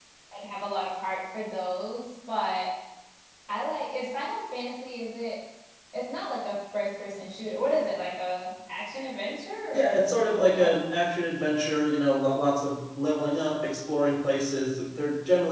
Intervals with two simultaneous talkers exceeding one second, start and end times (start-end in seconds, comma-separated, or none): none